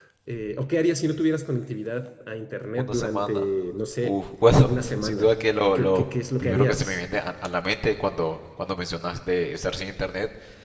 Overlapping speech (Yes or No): Yes